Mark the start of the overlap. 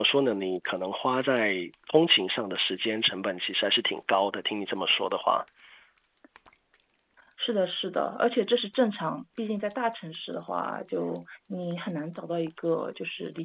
none

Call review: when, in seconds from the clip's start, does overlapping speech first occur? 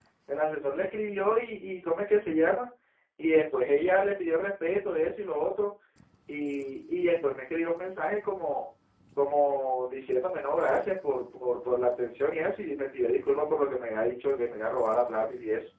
none

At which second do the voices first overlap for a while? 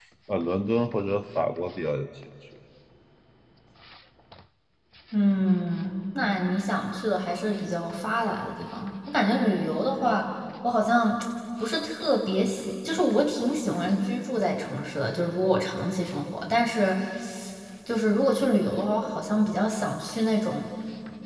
none

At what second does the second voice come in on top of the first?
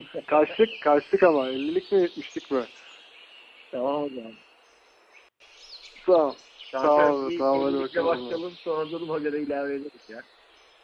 7 s

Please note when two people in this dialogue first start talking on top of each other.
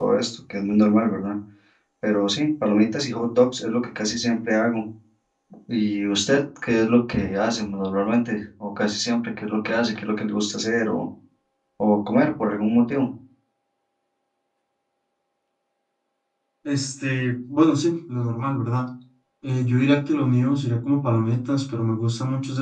none

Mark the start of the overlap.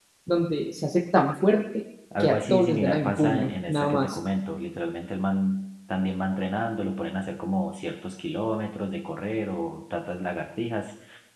2 s

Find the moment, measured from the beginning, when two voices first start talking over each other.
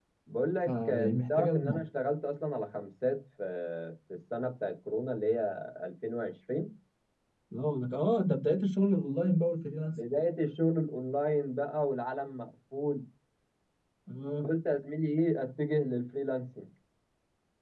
1 s

